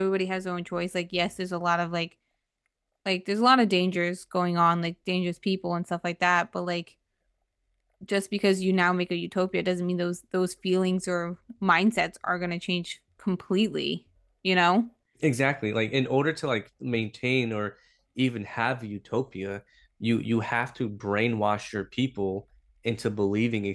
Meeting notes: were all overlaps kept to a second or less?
Yes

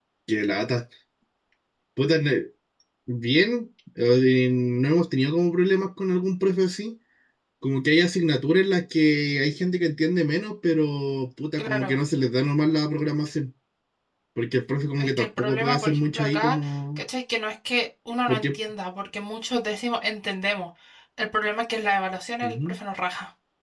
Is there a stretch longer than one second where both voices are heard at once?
Yes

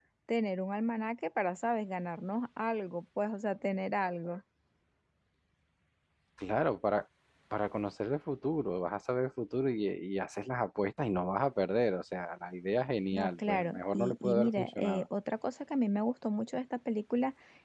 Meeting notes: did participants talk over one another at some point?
Yes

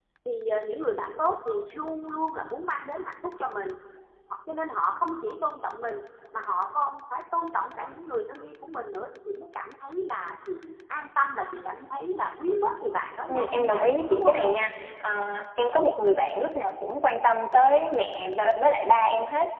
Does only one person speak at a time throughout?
No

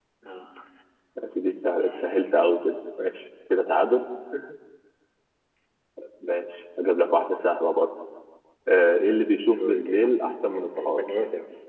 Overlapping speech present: Yes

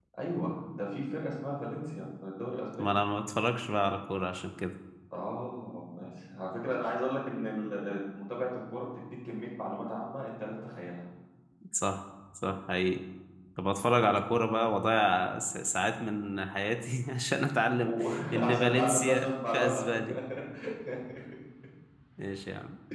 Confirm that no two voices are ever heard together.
No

